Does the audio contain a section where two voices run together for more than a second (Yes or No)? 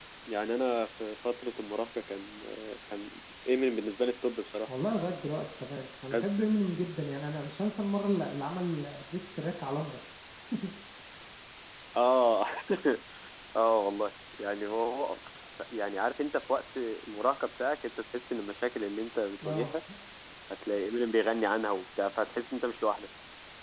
No